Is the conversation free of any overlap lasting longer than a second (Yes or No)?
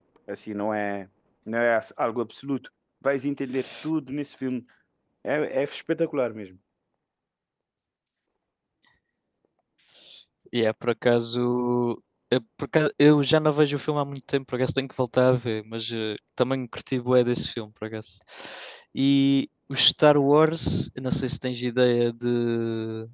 Yes